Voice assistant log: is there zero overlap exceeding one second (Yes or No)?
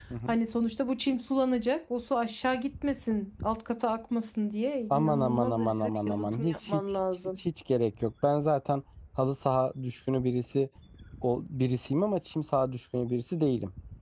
No